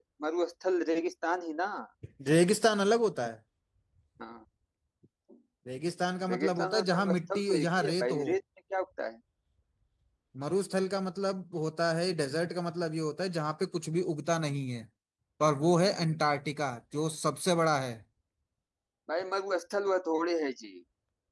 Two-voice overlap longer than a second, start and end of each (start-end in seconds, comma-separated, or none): 6.3-8.2